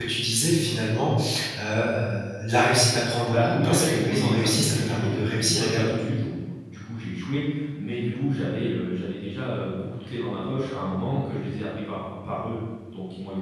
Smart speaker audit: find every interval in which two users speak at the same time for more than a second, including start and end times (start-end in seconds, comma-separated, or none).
3.3-6.0